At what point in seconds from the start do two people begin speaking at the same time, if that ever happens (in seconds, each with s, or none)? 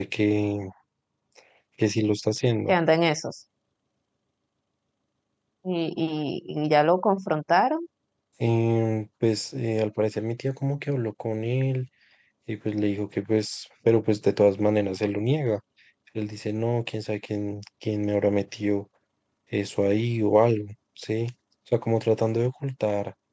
none